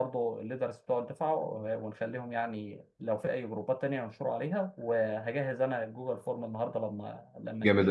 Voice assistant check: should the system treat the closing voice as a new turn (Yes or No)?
Yes